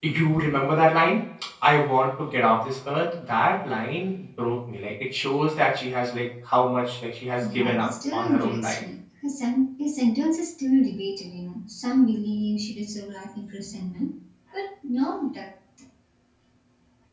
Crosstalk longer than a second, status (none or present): present